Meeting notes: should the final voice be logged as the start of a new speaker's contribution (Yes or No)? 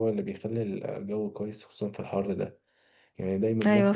No